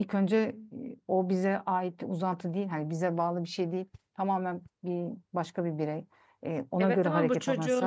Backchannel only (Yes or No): No